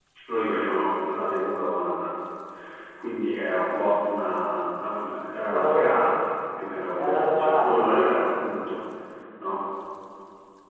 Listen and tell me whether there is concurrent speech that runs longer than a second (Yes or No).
Yes